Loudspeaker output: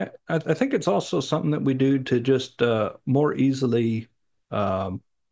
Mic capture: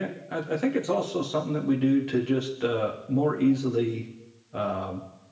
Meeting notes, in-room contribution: none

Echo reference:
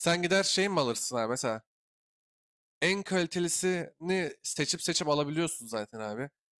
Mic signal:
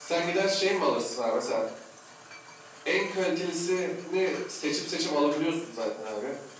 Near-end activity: none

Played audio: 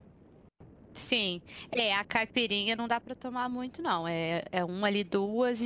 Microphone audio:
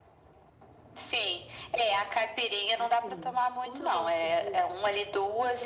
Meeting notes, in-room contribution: present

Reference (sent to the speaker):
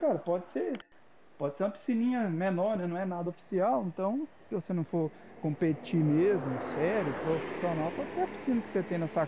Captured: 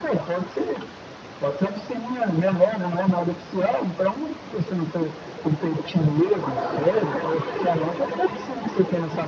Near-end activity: none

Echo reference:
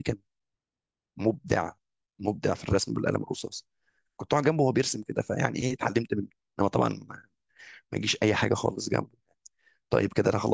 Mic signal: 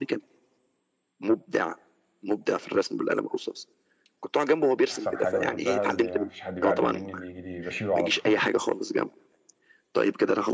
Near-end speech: present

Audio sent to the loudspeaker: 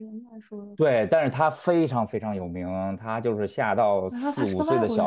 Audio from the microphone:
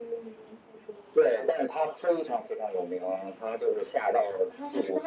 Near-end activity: none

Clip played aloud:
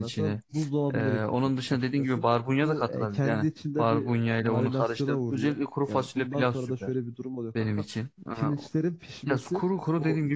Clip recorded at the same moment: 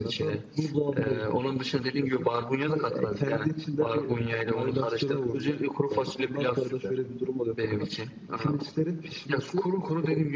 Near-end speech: none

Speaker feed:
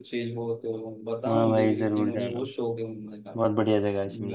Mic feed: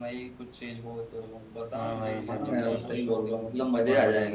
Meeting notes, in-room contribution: present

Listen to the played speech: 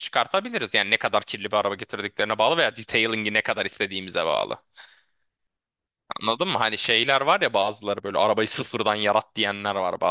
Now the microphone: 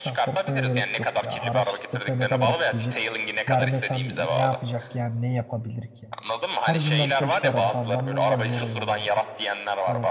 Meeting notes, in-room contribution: present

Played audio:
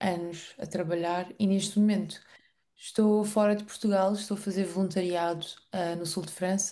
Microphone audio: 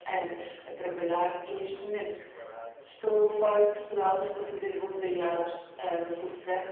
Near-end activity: present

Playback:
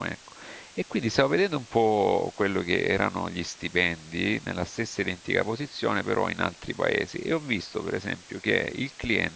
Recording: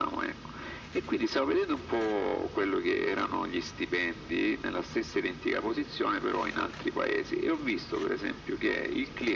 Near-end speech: none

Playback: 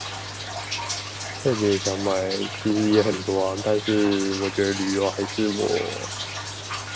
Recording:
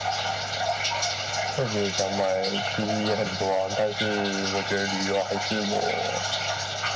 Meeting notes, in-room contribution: none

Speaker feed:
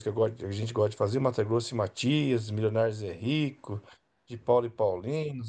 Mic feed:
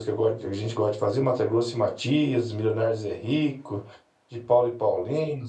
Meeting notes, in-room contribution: none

